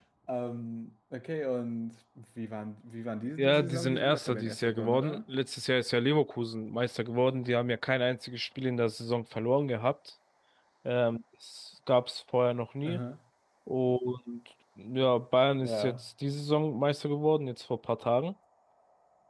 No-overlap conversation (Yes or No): No